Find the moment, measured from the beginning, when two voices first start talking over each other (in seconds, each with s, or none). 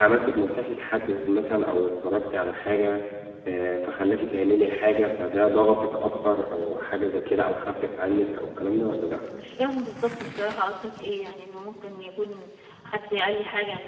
none